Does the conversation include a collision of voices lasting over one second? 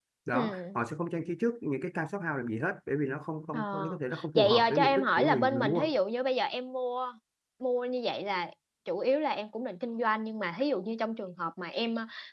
Yes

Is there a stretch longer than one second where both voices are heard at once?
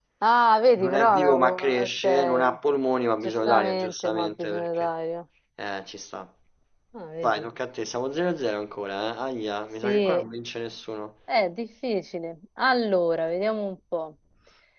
Yes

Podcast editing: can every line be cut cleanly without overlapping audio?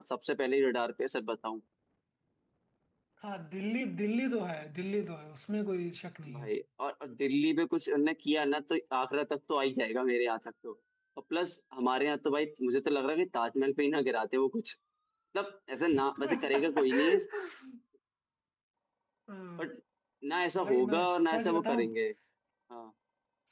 No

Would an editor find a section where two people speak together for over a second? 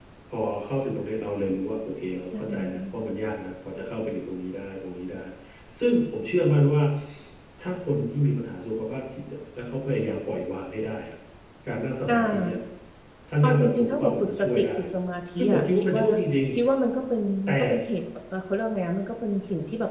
Yes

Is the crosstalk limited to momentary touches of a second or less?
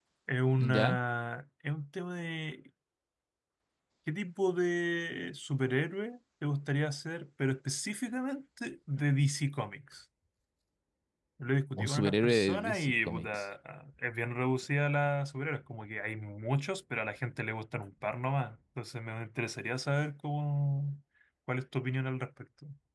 No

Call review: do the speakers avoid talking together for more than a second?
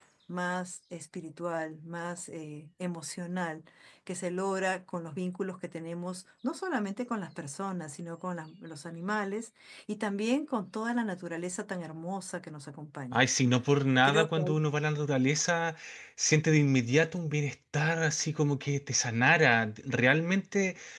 Yes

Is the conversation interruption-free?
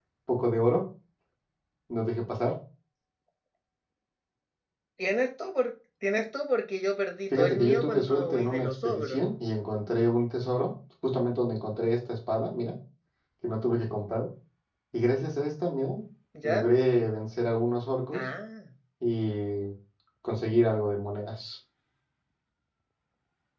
No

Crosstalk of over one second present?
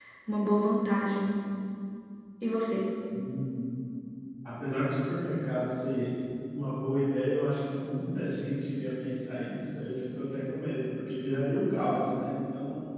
No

